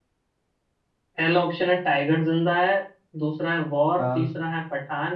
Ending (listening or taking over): listening